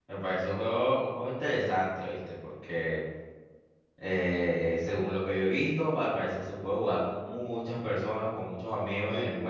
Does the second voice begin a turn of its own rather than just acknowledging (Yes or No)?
Yes